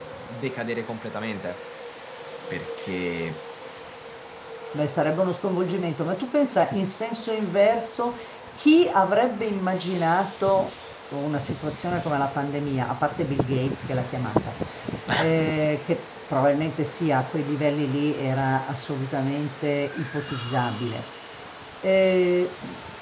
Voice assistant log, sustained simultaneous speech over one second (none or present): none